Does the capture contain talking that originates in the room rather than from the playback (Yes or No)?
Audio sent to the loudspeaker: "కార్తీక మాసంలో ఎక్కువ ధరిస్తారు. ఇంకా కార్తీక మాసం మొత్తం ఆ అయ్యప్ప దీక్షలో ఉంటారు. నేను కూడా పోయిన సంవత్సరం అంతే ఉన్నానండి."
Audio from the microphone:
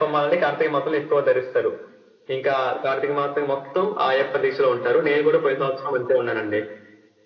No